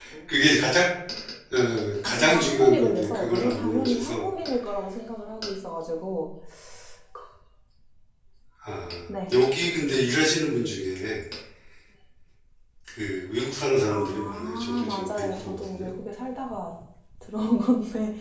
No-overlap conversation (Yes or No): No